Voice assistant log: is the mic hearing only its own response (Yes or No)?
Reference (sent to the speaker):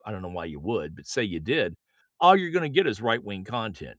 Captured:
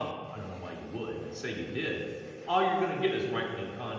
Yes